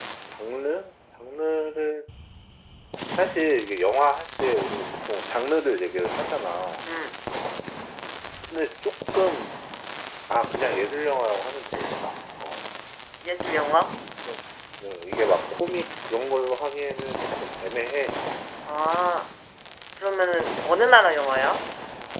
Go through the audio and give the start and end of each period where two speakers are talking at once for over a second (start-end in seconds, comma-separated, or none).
none